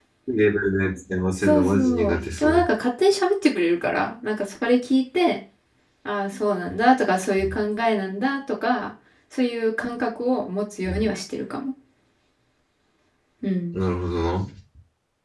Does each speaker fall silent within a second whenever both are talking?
No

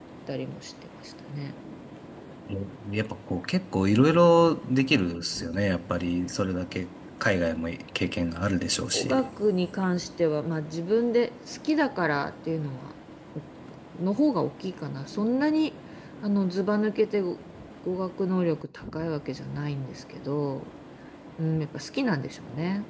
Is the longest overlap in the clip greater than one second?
No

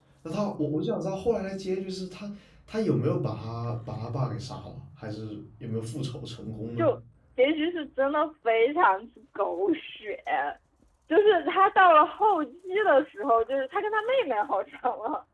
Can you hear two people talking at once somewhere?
No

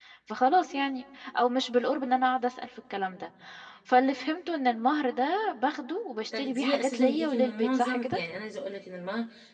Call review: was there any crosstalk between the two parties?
Yes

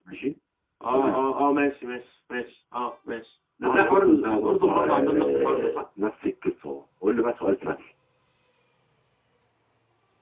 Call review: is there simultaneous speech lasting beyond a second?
Yes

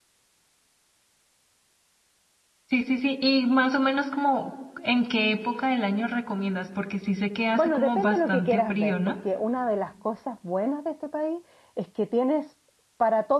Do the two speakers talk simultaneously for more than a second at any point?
Yes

